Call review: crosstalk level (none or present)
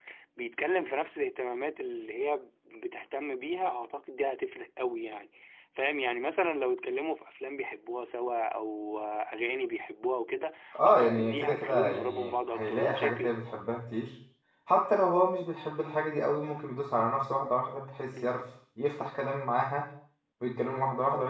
present